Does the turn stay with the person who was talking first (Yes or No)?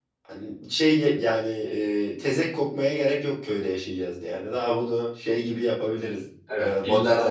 No